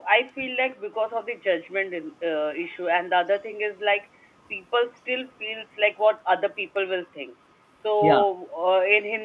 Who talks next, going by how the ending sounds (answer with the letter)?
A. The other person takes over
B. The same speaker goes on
B